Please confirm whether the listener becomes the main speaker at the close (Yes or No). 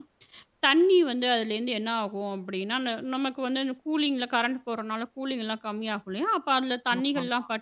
No